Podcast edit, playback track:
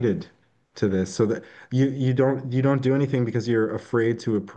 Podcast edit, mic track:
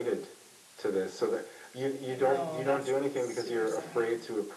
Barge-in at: 2.1 s

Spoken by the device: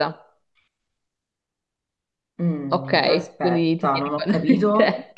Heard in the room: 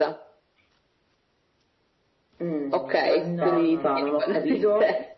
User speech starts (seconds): 3.2 s

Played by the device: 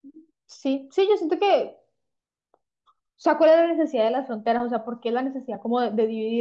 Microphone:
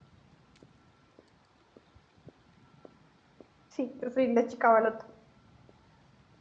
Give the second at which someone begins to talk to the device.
3.7 s

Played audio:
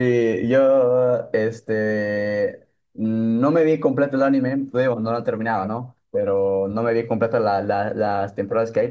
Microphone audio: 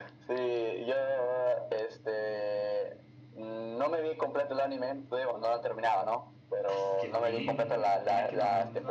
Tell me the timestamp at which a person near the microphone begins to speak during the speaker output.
6.7 s

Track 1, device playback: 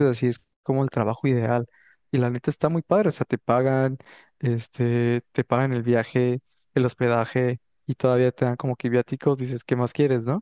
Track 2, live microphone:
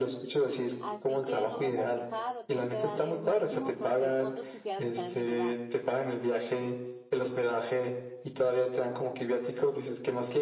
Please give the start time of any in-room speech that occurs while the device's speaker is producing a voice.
0.8 s

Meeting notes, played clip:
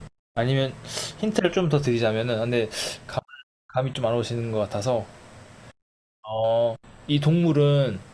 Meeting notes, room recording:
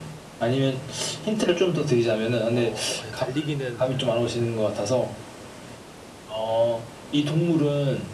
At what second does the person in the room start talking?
2.5 s

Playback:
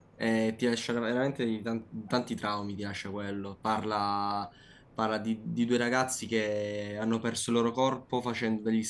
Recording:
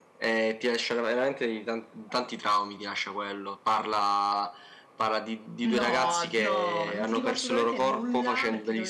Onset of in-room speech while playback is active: 5.6 s

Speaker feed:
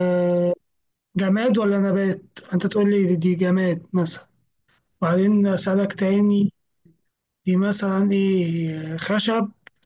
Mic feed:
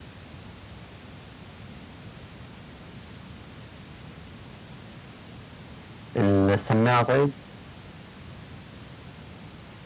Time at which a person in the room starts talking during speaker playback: 6.2 s

